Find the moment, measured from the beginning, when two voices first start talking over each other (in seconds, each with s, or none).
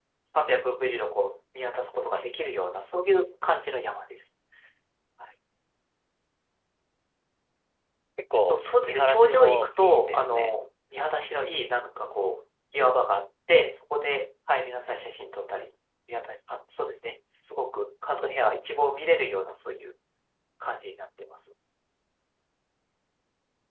8.4 s